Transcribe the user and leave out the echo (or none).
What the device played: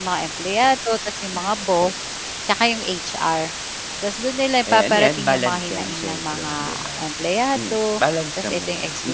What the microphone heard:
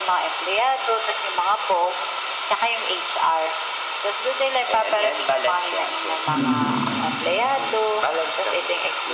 Mm,